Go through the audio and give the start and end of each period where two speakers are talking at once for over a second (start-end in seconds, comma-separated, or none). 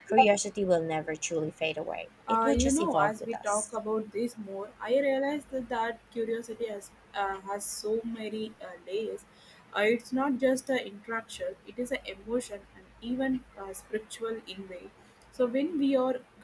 2.3-3.6